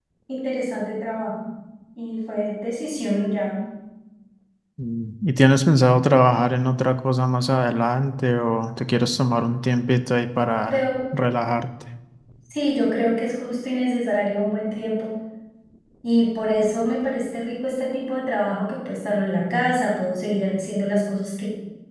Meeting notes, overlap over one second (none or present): none